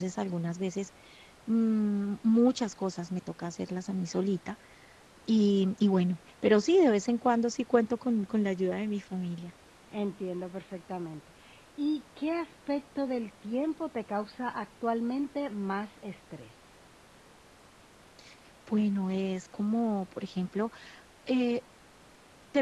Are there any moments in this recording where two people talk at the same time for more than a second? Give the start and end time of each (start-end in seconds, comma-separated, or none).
none